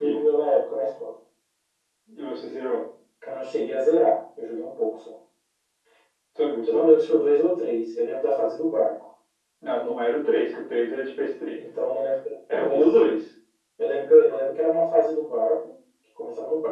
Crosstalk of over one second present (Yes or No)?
No